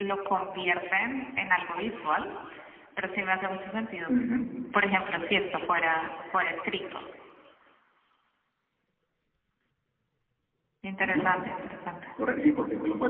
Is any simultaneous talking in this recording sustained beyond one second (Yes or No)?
No